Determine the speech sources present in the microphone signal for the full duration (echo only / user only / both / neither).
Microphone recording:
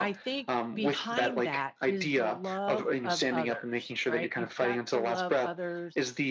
both